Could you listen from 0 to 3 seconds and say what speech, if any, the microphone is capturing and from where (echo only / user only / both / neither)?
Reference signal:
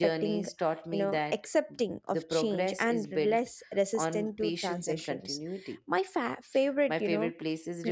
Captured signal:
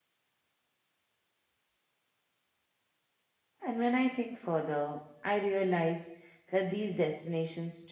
neither